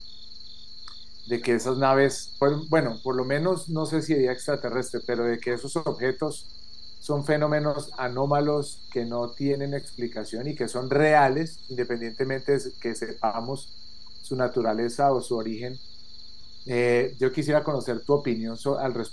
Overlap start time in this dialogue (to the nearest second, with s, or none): none